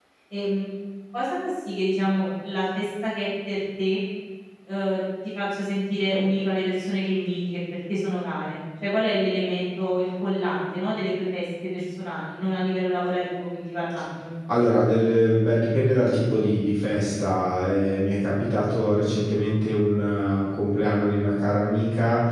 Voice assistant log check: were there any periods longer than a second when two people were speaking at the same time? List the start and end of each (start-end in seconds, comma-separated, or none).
none